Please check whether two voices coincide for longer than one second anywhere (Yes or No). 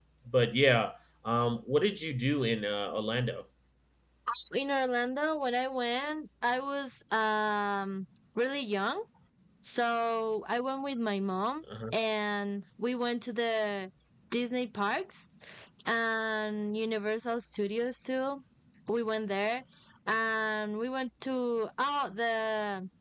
No